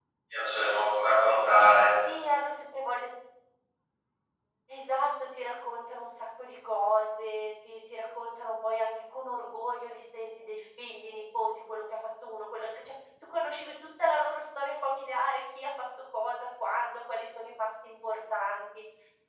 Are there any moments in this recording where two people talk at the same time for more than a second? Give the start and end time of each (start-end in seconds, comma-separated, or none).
none